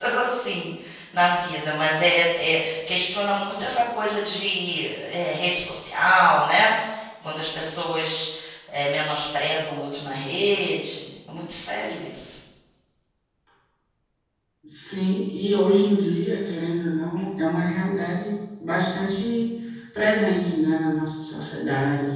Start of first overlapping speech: none

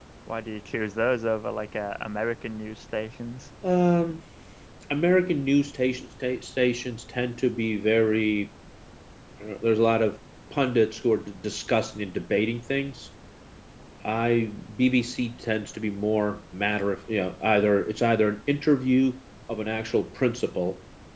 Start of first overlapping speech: none

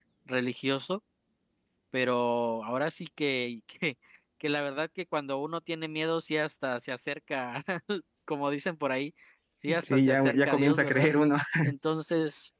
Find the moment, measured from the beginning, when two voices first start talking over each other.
9.8 s

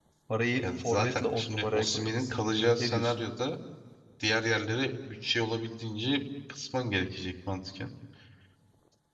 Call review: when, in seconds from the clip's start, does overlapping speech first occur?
0.6 s

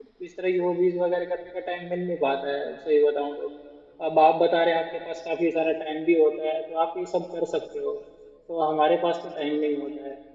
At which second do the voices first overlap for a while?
none

